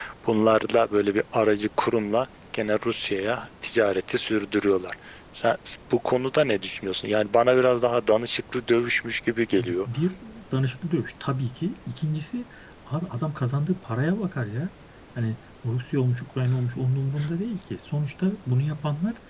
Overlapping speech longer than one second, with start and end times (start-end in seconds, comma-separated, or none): none